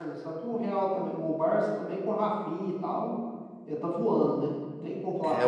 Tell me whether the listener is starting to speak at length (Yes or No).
Yes